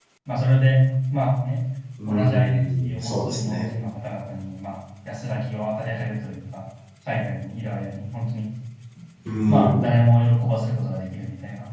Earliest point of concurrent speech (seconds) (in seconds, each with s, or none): 2.1 s